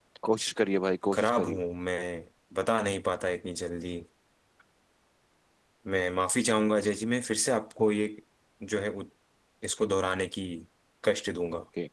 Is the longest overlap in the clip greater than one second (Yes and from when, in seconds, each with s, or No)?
No